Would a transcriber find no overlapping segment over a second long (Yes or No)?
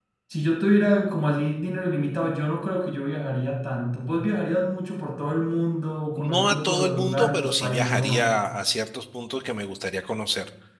No